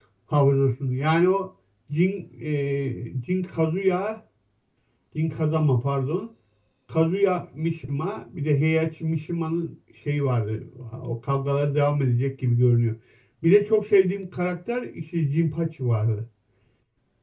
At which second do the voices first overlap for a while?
none

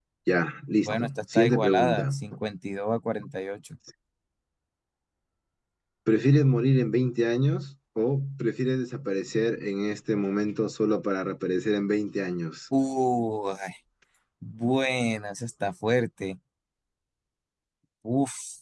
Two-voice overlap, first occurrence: 0.8 s

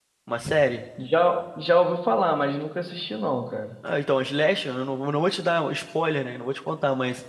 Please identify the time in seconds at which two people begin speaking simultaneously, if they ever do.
none

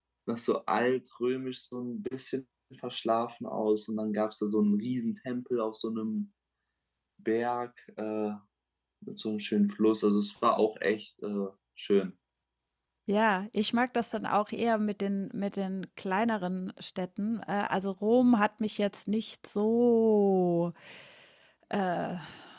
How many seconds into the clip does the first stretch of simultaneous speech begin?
none

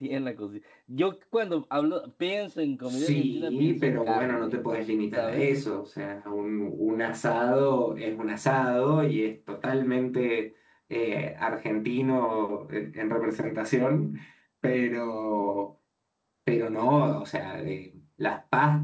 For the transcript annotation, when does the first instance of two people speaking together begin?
2.9 s

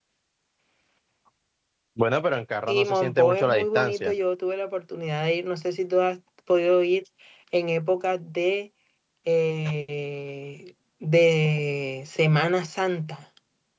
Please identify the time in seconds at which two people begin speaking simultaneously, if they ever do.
2.7 s

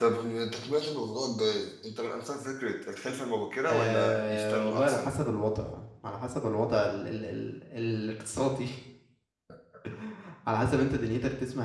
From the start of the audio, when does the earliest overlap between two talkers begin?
3.7 s

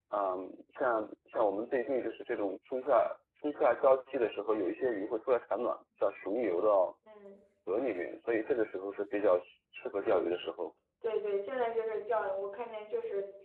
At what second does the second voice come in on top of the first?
none

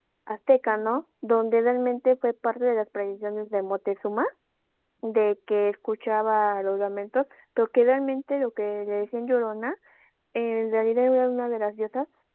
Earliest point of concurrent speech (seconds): none

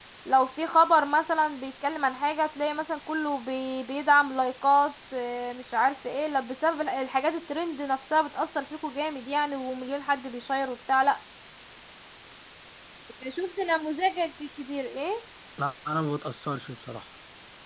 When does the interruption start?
none

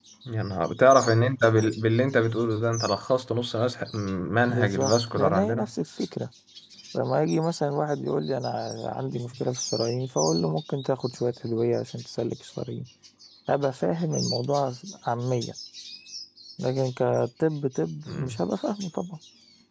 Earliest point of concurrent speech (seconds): 4.5 s

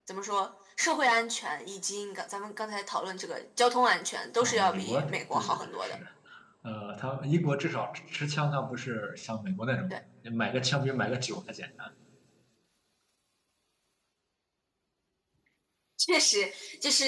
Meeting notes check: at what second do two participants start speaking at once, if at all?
4.4 s

